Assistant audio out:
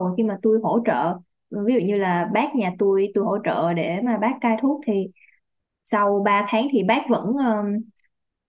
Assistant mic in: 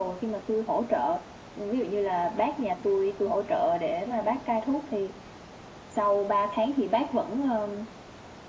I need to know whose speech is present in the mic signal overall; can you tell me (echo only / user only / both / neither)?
echo only